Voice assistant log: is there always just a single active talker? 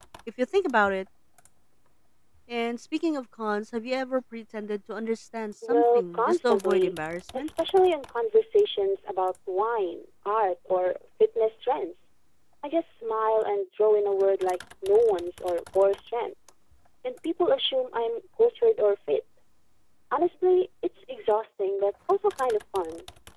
No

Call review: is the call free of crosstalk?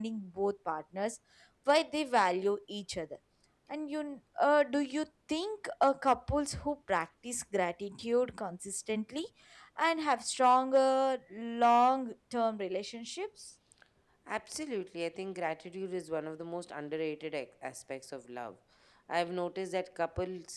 Yes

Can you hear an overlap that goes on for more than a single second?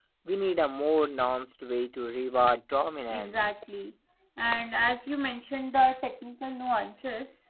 No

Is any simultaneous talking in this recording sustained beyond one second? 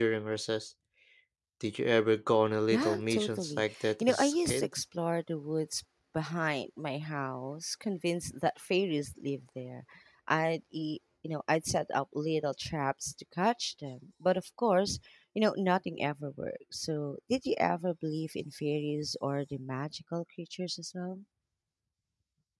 Yes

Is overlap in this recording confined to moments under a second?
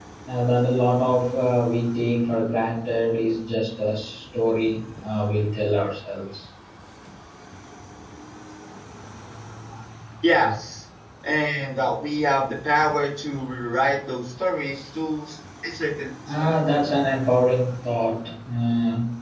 Yes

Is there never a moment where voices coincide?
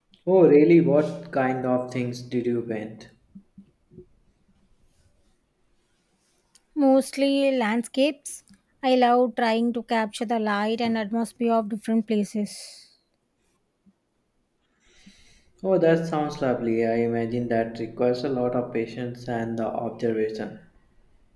Yes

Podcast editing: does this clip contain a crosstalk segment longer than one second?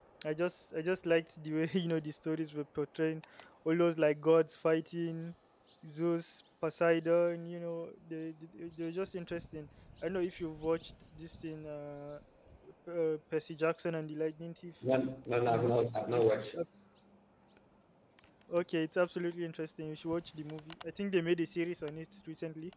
No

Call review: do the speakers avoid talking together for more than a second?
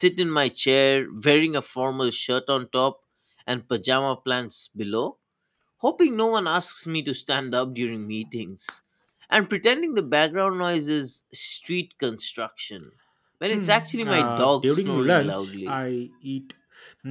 No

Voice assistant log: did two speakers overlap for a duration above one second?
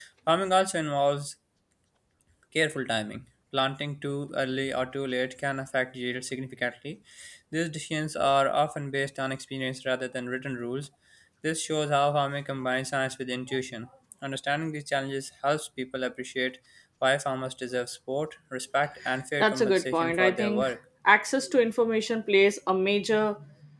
Yes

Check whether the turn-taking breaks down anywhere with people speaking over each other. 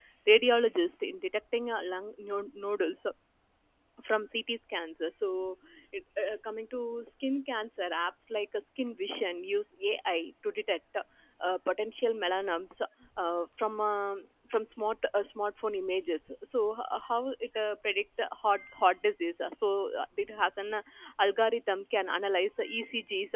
No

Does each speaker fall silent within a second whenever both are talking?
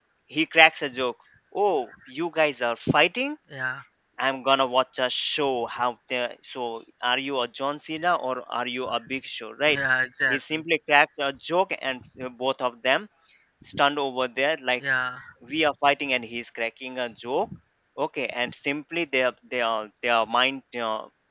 Yes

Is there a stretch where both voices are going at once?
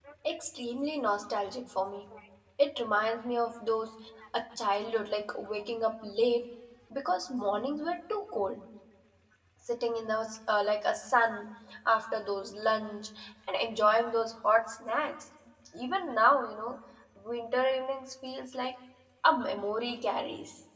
No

